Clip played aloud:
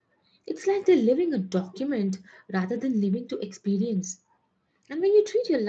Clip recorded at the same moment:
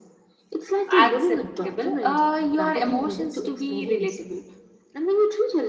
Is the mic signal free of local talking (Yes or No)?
No